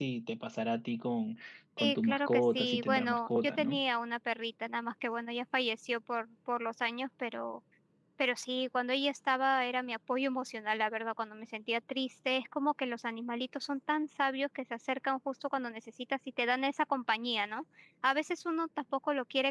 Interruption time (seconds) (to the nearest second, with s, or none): 2 s